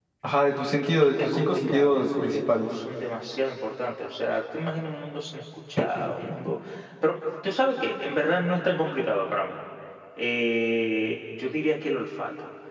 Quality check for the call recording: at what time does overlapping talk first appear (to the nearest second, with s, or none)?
1 s